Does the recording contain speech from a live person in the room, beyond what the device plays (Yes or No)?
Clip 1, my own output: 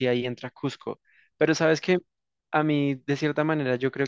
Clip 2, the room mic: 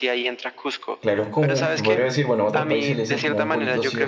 Yes